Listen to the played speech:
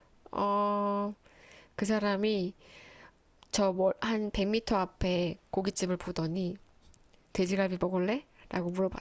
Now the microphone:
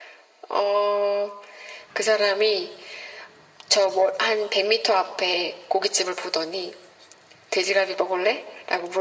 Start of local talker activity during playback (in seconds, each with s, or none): none